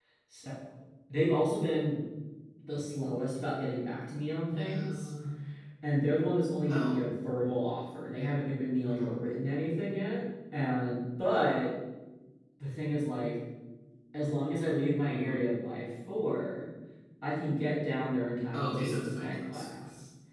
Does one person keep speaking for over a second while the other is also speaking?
Yes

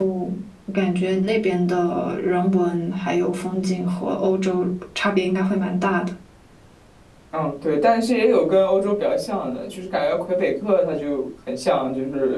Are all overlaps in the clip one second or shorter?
Yes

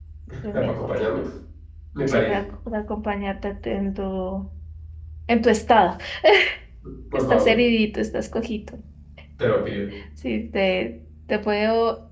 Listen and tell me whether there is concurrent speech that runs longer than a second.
No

